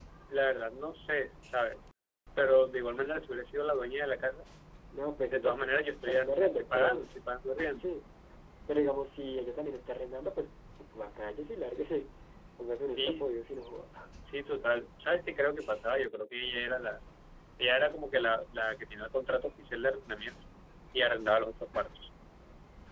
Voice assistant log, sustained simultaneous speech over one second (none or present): present